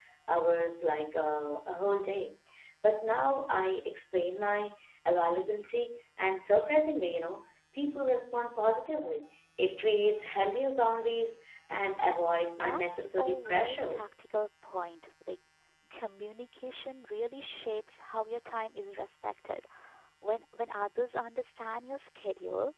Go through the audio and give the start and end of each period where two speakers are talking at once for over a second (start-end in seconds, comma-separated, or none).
12.6-14.0